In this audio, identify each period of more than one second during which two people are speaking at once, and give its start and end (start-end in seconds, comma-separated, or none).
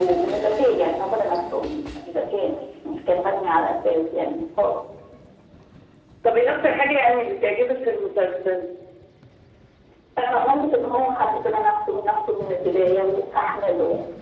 none